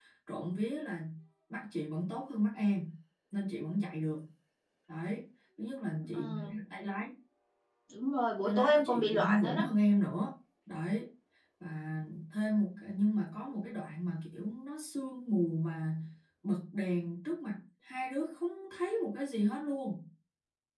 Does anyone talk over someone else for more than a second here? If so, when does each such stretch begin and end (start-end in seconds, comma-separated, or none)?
8.4-9.7